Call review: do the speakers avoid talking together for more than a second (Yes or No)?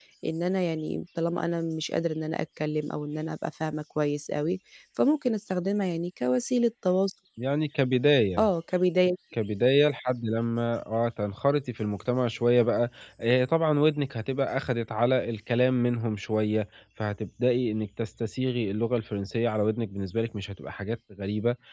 Yes